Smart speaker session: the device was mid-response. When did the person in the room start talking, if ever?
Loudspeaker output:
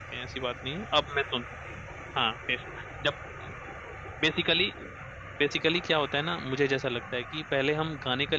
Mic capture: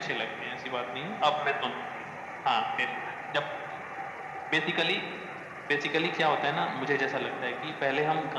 none

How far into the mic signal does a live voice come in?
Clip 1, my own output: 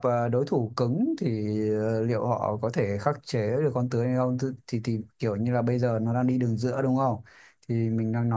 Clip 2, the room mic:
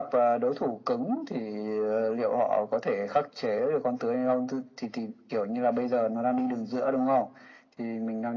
none

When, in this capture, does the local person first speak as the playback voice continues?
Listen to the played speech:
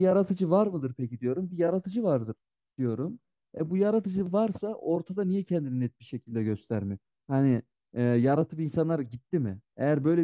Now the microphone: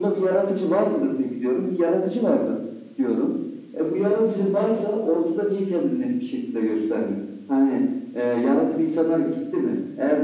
none

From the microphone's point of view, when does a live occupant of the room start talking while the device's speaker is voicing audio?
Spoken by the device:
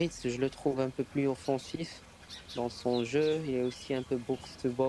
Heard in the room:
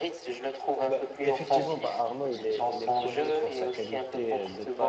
0.8 s

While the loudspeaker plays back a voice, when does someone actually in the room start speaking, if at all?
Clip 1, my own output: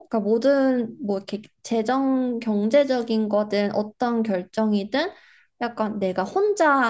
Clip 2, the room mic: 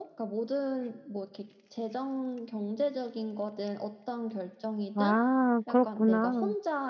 4.9 s

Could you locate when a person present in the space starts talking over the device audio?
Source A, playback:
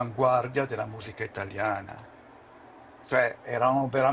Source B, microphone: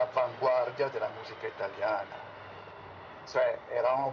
none

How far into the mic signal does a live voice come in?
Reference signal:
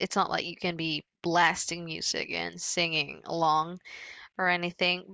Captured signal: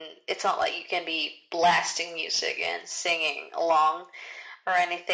none

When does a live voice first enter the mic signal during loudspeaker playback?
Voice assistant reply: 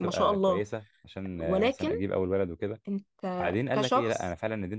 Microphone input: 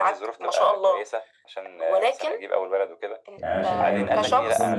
3.4 s

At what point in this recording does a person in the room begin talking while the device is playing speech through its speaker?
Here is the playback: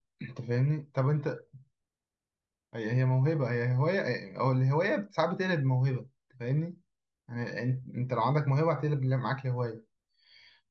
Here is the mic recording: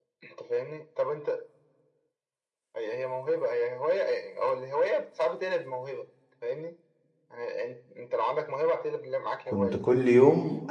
9.4 s

